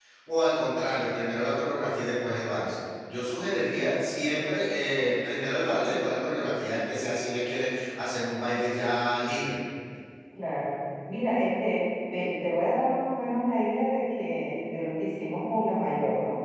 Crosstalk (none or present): none